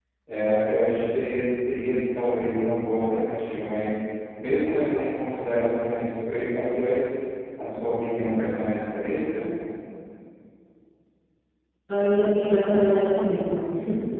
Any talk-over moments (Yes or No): No